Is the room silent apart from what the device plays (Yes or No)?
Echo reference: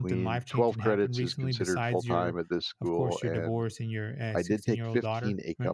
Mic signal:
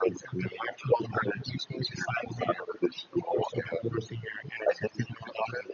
Yes